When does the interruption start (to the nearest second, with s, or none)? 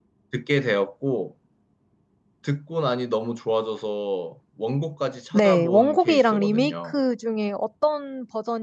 5 s